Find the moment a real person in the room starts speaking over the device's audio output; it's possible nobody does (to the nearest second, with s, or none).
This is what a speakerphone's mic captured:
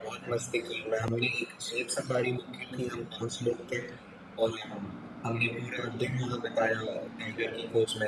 none